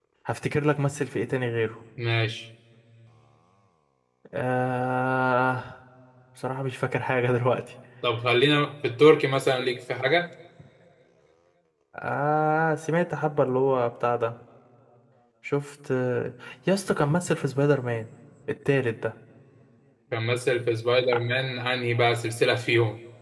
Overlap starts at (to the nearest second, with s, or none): none